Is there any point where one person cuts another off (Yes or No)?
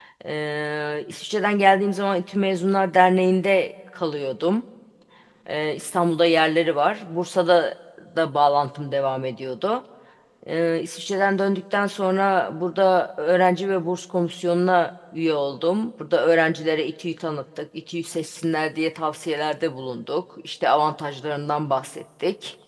No